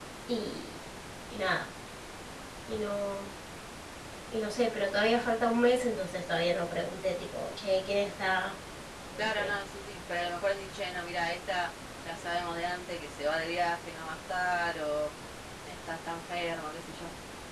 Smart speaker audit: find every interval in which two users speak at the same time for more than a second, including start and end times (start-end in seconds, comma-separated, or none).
none